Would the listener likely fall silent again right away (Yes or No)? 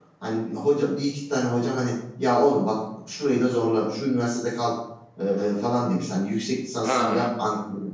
Yes